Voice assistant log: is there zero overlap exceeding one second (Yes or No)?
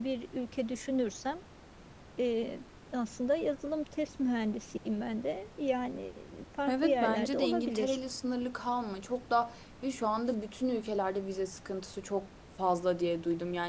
No